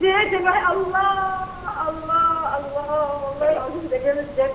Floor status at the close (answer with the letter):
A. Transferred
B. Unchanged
B